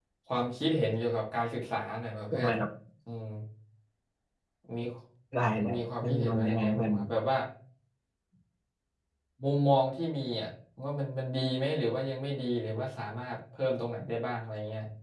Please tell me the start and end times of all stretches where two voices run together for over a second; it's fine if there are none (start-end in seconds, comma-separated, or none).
5.6-6.9